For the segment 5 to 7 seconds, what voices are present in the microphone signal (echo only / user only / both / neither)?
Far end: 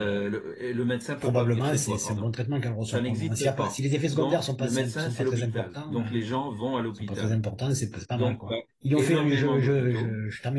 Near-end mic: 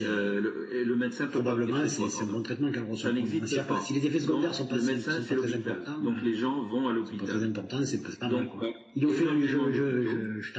echo only